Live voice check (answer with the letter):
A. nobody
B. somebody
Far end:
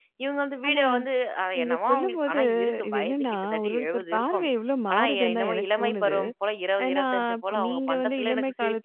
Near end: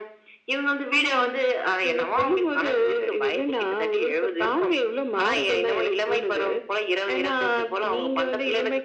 A